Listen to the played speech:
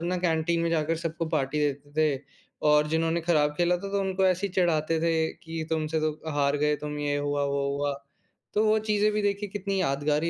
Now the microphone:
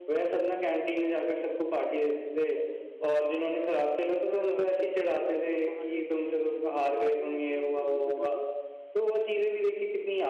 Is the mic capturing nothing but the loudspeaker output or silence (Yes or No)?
No